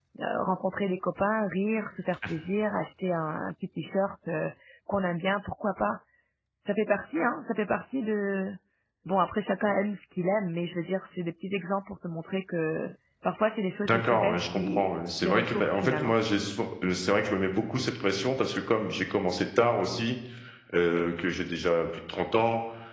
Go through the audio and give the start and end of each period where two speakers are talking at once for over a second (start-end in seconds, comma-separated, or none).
13.8-16.2